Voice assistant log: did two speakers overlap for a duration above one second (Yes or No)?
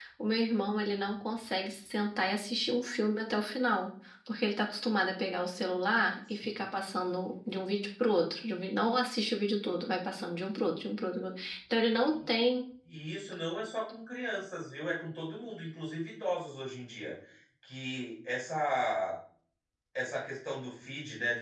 No